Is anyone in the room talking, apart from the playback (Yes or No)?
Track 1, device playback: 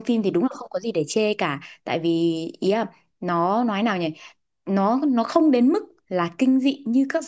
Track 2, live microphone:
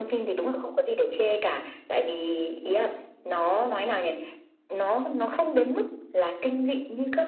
No